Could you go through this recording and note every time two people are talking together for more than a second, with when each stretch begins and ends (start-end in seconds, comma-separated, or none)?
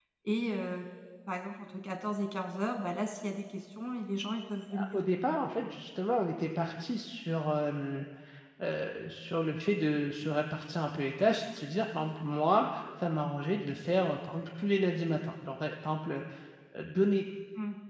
none